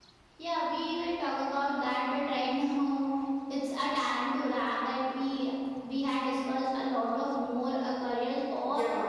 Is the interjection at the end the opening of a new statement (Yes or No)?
No